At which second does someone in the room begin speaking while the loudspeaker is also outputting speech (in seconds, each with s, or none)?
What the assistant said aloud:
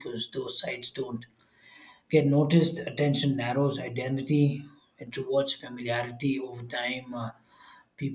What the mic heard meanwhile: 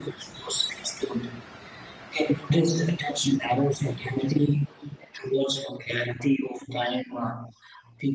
none